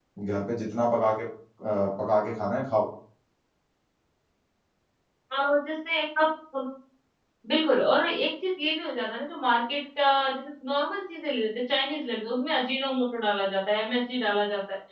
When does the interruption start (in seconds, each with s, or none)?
none